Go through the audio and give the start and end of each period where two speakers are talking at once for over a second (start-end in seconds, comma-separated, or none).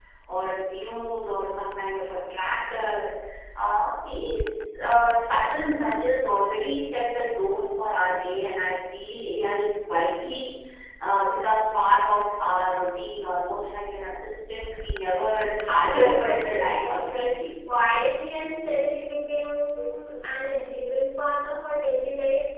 15.9-17.4